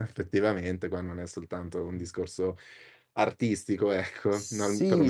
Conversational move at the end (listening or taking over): taking over